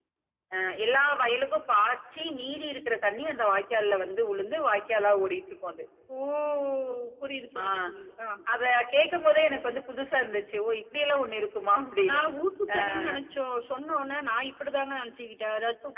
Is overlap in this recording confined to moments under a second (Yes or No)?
Yes